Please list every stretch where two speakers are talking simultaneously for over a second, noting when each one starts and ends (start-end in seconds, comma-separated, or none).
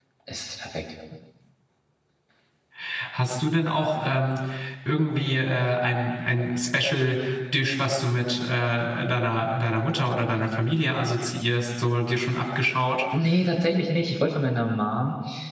none